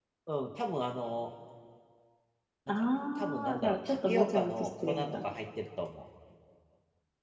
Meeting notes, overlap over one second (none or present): present